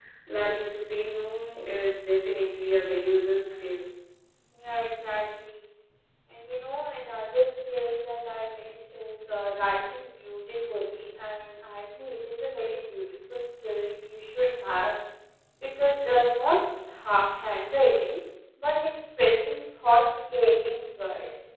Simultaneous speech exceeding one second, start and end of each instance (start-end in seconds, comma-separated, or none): none